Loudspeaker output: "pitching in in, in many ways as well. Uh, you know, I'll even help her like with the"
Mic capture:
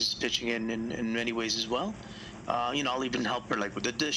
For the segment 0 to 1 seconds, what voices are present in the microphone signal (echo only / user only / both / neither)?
echo only